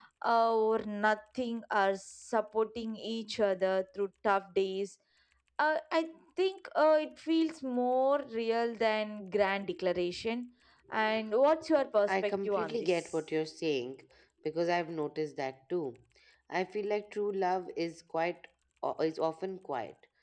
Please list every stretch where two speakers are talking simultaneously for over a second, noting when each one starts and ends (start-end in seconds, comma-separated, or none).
12.0-13.3